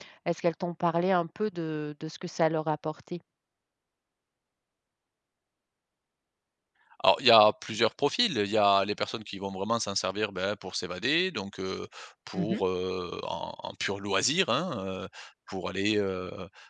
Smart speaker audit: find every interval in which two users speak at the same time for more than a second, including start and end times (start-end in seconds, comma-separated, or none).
none